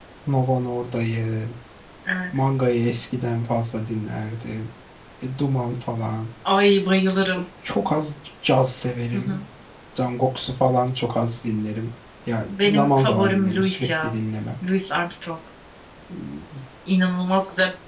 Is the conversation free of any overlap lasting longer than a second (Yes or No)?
No